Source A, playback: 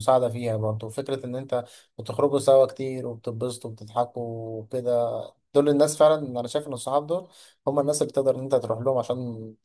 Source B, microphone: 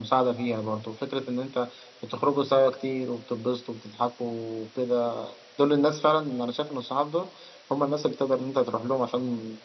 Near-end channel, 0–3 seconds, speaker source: echo only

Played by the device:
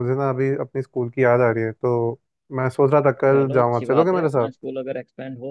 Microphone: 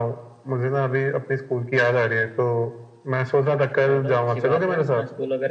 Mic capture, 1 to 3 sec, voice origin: echo only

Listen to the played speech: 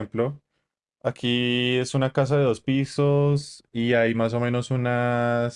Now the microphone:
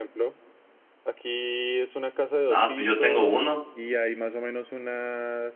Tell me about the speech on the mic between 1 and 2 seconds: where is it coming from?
echo only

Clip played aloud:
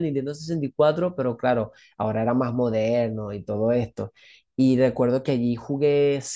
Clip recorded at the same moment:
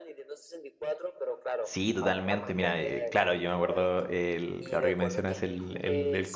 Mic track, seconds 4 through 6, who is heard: both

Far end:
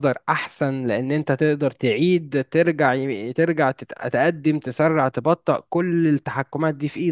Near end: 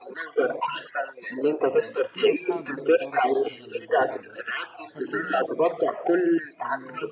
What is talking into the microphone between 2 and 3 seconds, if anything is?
both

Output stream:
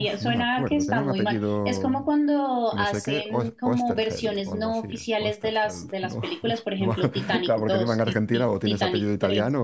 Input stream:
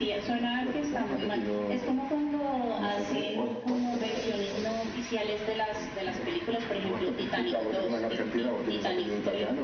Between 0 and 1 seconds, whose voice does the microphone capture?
echo only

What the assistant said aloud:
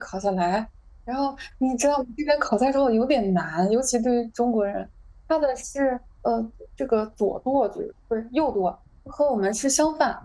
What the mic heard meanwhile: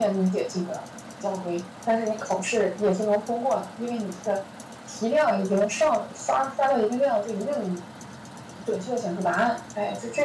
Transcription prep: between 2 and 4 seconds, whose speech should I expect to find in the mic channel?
user only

